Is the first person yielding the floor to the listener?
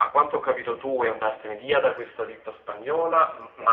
No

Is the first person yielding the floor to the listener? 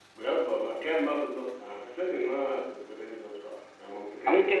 Yes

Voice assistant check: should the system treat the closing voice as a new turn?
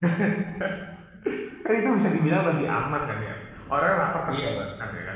No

